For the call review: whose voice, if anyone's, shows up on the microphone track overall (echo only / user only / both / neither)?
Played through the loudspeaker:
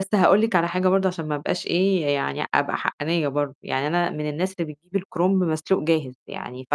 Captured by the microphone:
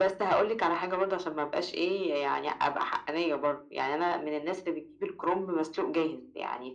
echo only